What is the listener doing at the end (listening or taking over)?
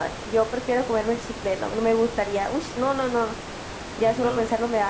taking over